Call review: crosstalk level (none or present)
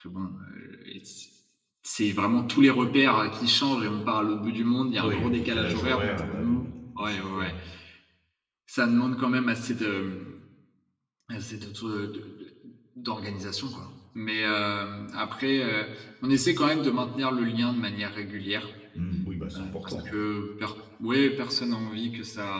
present